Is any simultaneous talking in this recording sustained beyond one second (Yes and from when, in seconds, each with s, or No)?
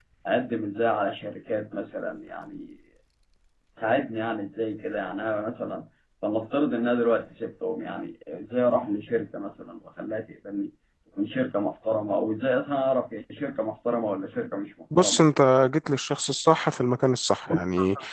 No